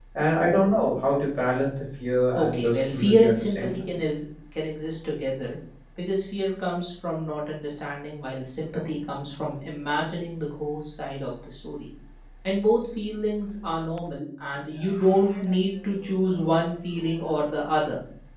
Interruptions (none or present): present